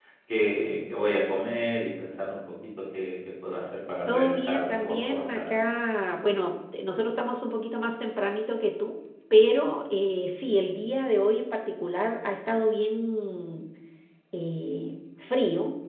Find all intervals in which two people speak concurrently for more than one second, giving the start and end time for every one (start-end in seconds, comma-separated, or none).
4.1-5.4